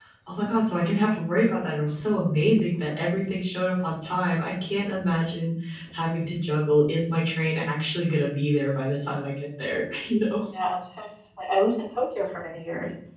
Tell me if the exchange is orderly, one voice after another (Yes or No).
Yes